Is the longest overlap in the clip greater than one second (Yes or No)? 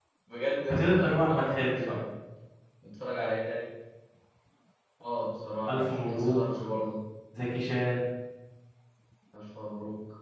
Yes